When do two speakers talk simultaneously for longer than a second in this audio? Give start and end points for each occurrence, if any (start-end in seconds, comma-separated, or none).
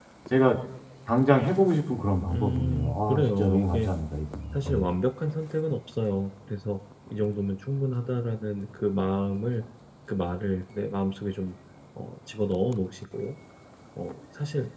2.3-3.9